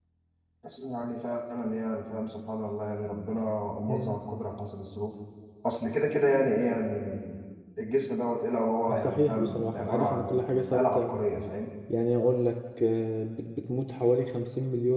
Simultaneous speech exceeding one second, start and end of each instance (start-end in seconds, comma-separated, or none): 8.9-11.1